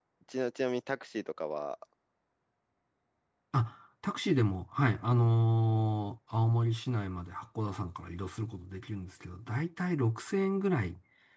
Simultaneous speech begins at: none

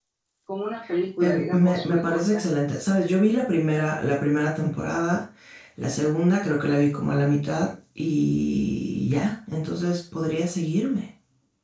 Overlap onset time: 1.2 s

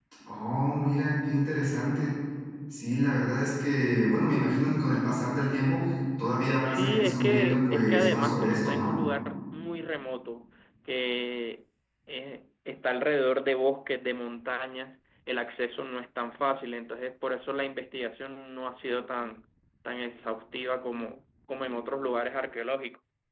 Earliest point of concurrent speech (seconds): 6.7 s

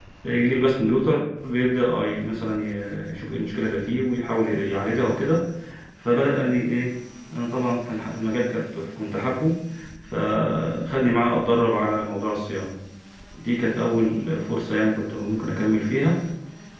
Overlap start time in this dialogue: none

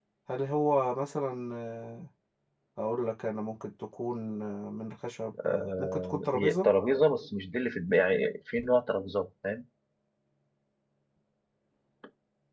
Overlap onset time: 5.3 s

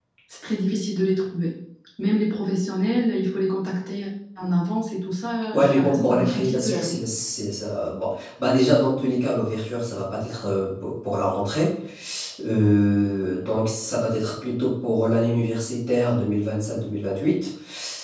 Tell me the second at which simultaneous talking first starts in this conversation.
5.5 s

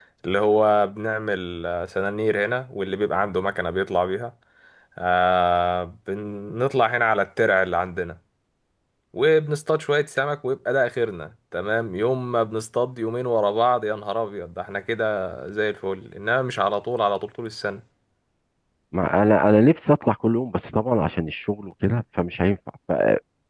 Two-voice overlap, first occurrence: none

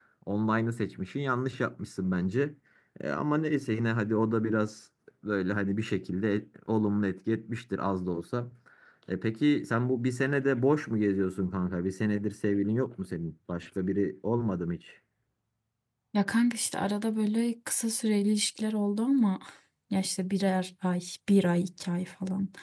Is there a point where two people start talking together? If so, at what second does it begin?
none

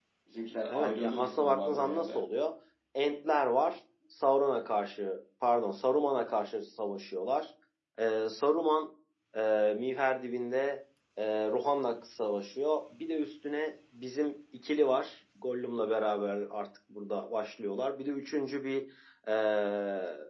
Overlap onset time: 0.7 s

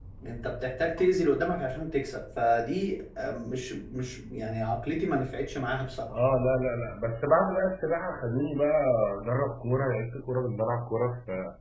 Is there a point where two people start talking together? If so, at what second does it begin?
none

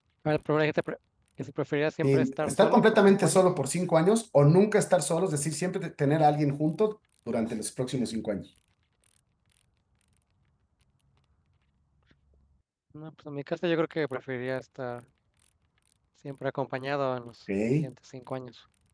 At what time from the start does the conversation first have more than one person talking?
2.0 s

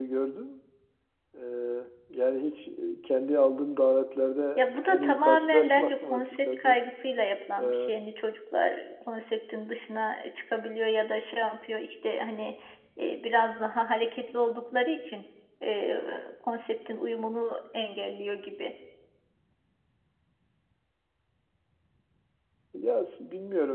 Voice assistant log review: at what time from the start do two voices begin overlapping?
4.6 s

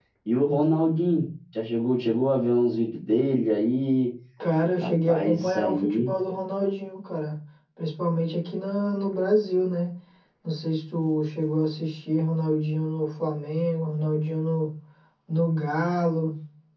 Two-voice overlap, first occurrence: 4.8 s

